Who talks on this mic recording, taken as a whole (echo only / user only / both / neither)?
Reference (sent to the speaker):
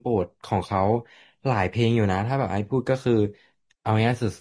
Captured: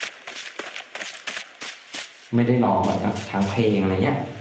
user only